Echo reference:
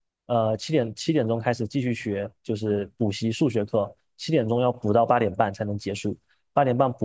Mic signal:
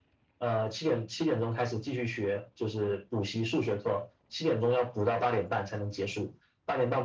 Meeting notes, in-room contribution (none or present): none